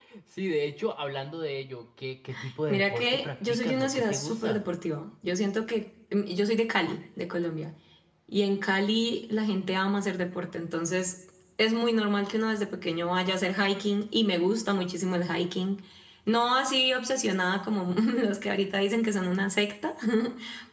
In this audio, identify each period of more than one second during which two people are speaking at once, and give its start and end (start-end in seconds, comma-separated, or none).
2.7-4.6